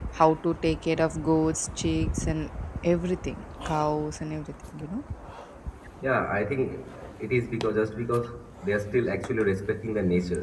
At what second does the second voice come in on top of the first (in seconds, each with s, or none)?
none